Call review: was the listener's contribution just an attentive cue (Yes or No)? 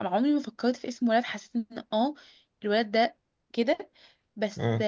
Yes